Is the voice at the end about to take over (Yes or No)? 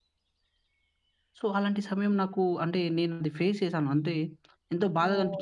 Yes